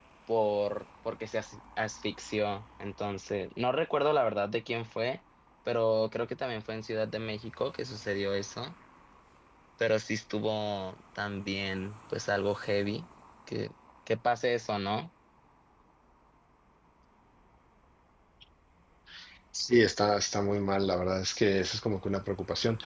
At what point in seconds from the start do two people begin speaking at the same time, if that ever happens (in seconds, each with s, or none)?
none